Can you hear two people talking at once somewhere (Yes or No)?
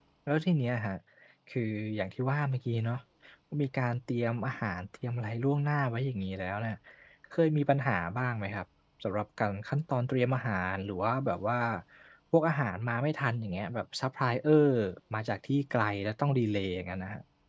No